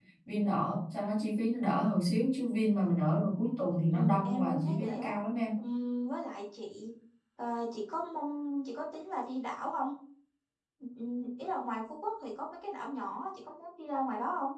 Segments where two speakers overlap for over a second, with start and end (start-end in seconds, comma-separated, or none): 3.9-5.1